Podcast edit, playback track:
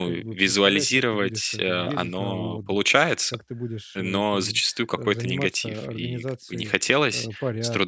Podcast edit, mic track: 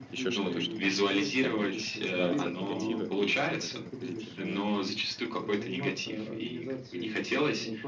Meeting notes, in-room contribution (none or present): present